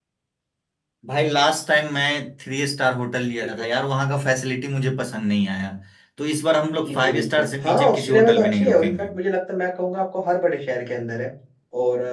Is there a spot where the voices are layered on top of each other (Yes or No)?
Yes